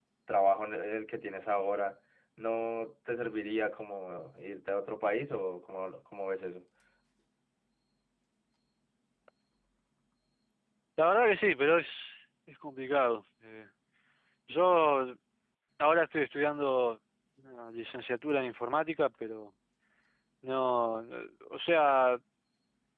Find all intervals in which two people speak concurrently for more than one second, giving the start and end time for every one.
none

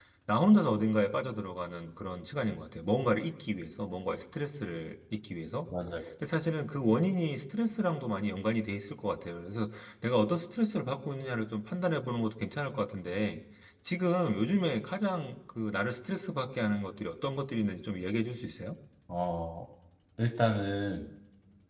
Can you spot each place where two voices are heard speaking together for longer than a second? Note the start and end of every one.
none

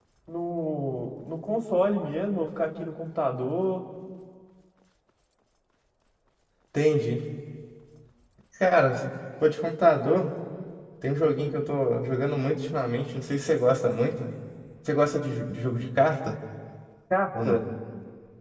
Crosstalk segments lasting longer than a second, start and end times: none

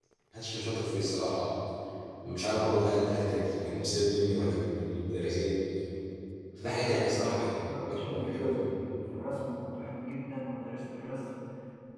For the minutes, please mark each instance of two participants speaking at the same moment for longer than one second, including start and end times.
6.7-8.7

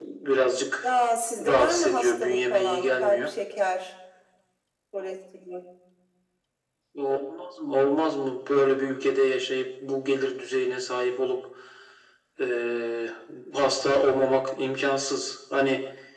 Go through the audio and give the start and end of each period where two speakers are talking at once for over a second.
1.5-3.3

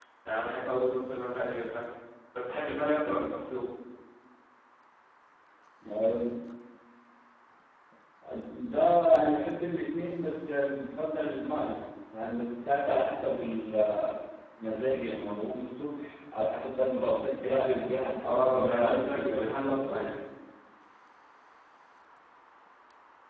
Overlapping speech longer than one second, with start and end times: 18.2-20.1

